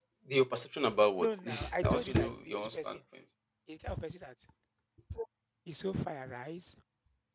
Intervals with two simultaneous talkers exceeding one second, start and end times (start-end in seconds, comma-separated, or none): 1.2-3.0